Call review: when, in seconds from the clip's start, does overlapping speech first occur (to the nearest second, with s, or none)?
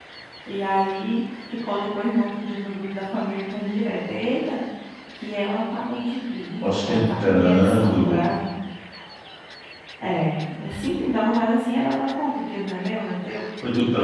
7 s